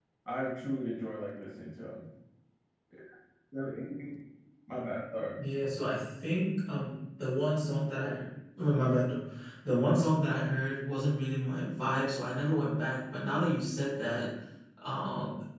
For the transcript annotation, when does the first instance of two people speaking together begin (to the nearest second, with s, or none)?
none